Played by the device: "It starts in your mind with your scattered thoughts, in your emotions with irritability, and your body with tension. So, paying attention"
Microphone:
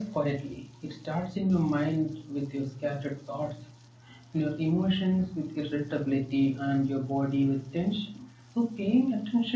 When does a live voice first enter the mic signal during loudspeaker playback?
none

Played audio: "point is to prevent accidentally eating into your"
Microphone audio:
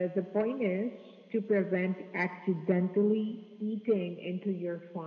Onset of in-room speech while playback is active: none

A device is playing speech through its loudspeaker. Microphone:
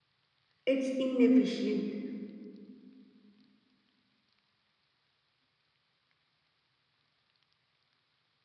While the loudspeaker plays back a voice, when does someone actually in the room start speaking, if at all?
0.6 s

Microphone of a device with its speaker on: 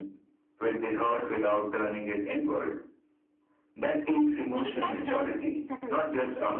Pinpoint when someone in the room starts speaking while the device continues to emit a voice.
4.5 s

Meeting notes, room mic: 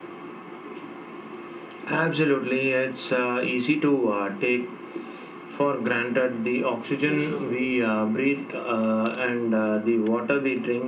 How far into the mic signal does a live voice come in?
7.0 s

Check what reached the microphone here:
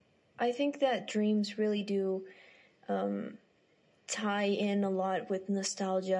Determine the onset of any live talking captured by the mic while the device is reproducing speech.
none

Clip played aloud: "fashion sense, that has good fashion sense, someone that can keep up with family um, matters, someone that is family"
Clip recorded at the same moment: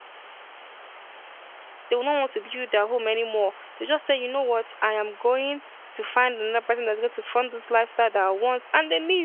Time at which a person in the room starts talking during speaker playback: 1.9 s

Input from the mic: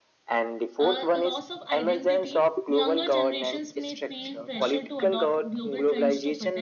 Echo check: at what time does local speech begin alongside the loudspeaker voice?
0.8 s

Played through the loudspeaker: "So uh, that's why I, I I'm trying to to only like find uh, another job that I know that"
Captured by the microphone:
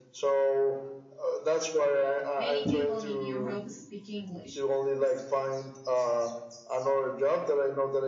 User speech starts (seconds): 2.4 s

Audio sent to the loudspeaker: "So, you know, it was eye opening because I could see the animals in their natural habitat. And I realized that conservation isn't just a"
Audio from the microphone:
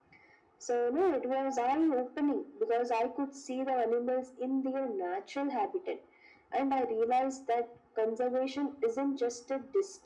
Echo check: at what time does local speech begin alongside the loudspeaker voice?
none

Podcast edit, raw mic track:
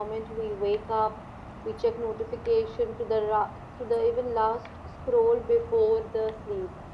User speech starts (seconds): none

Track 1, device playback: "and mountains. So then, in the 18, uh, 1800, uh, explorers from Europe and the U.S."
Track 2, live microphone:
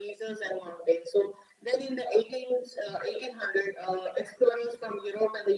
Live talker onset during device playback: none

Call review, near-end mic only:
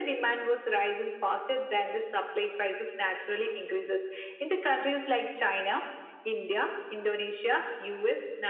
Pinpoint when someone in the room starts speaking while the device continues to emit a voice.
none

